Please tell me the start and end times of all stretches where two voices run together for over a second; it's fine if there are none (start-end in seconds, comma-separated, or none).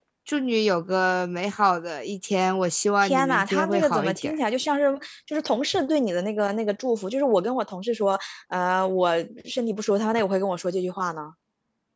3.0-4.3